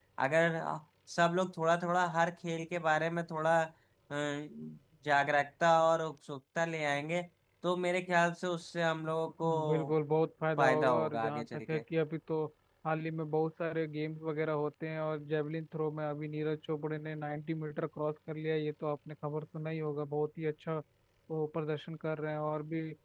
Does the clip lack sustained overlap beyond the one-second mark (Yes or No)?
No